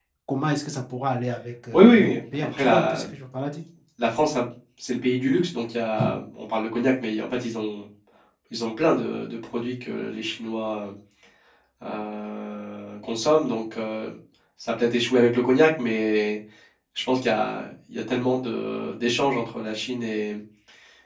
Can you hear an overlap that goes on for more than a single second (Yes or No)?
Yes